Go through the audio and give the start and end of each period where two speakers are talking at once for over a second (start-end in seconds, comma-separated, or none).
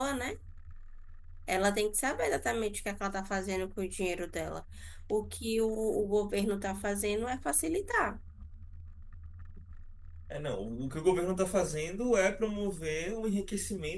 none